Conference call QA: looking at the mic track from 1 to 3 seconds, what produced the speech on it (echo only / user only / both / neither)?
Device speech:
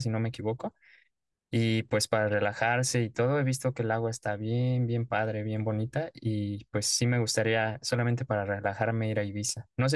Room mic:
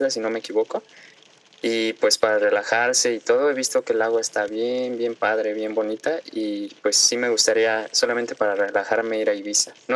echo only